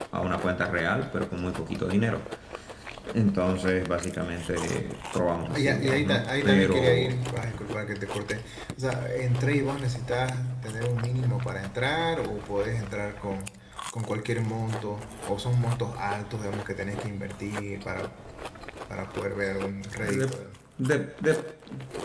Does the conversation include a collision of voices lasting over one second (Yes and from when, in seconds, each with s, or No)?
Yes, from 5.6 s